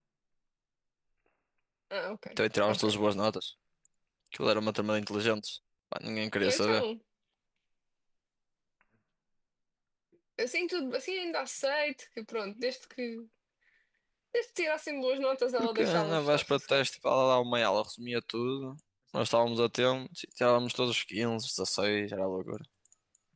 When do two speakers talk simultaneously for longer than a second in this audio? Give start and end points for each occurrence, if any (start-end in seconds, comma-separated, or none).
15.6-17.0